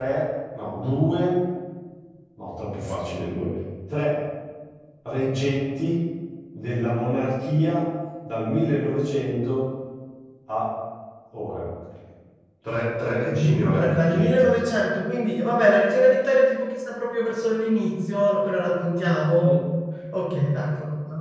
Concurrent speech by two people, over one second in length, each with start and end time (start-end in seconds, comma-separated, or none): 13.3-14.7